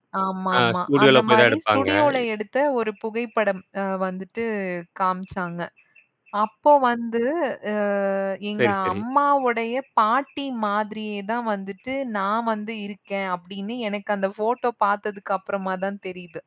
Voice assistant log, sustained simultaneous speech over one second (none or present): present